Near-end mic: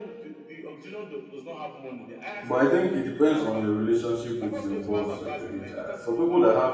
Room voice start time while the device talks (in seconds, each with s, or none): 2.4 s